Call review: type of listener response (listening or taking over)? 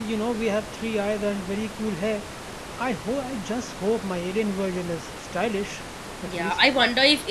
taking over